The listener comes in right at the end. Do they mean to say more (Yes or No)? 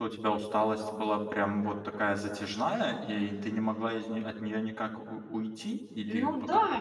Yes